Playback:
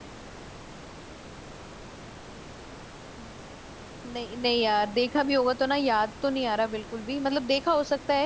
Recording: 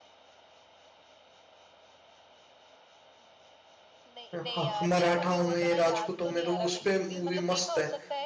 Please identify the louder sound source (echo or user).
user